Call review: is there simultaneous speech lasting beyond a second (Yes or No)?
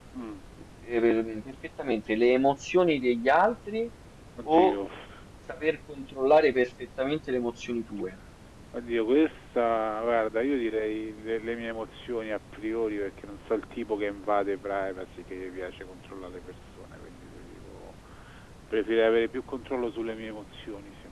No